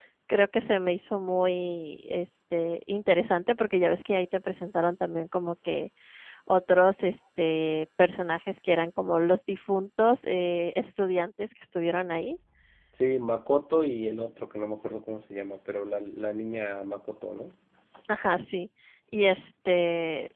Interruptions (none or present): none